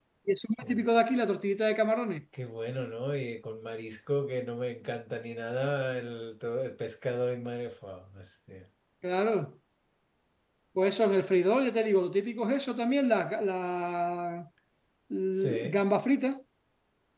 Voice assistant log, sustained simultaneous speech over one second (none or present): none